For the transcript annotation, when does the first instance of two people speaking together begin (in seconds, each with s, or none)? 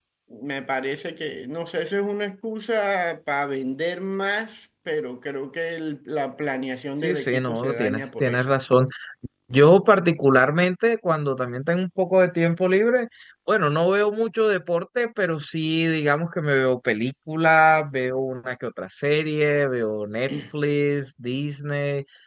7.0 s